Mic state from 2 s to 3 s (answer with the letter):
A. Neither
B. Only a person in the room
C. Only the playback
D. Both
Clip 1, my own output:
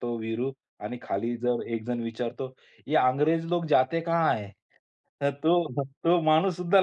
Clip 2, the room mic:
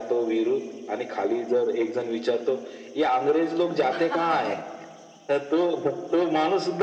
C